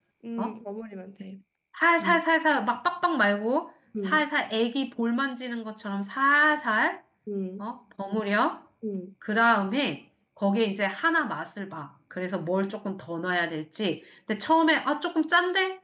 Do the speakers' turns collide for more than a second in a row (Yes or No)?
No